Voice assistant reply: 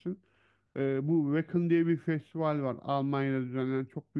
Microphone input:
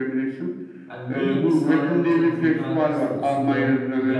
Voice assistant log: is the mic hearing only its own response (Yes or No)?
No